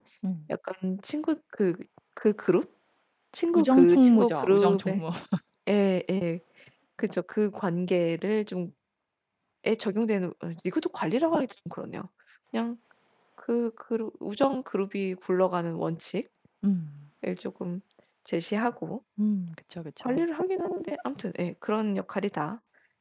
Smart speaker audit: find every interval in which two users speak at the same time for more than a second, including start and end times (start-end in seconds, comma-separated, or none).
3.5-5.0